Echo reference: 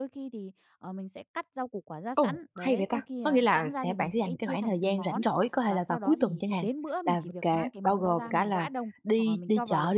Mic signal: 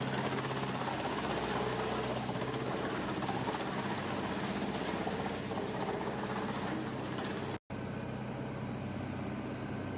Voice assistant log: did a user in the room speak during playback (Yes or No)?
No